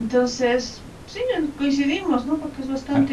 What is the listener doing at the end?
listening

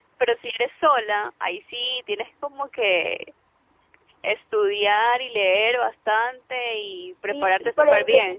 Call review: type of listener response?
taking over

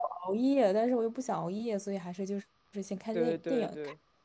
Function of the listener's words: taking over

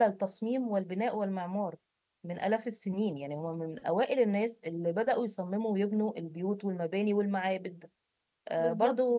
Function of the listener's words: taking over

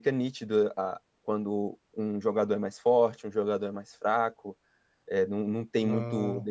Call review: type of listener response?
listening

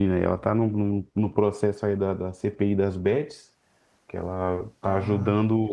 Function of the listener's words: listening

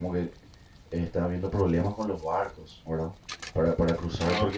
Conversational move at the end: listening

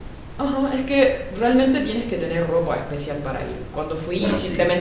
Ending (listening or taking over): listening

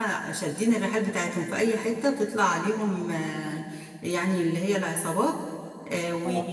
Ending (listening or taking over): listening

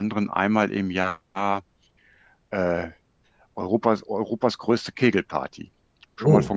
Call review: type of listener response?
taking over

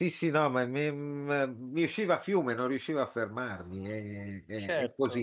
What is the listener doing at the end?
listening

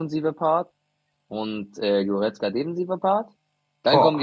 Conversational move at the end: listening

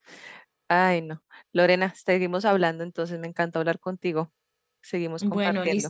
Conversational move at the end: taking over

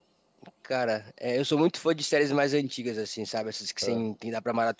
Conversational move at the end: listening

